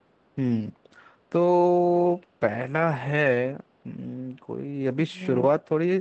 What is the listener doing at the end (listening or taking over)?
listening